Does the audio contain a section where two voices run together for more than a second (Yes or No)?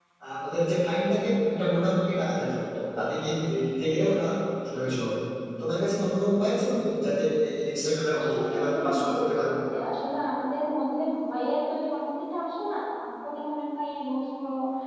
Yes